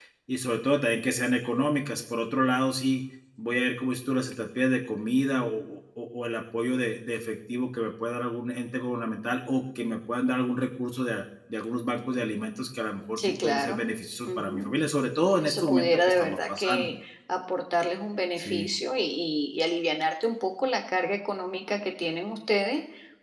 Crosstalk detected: Yes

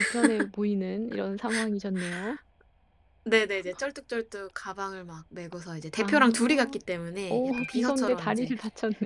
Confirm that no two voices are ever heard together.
No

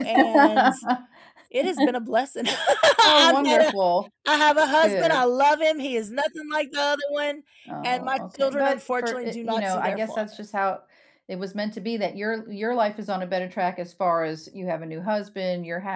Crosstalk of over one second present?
Yes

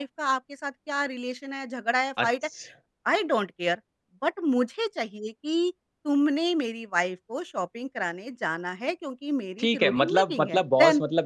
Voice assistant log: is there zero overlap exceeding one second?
No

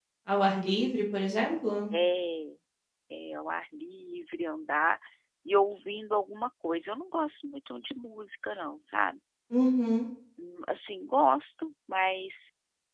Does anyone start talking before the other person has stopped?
No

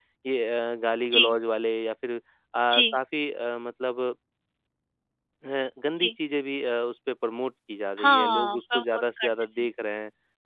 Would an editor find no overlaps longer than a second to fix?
No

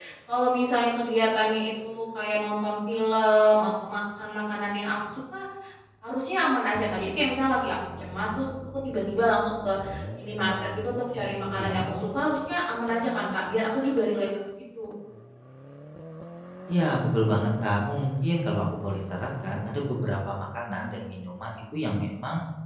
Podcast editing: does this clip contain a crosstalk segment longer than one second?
No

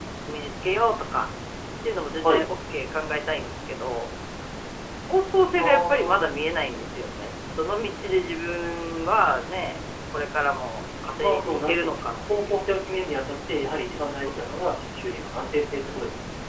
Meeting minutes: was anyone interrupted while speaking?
Yes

